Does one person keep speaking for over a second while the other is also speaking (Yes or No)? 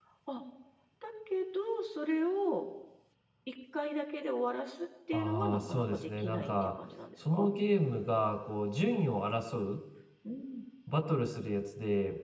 Yes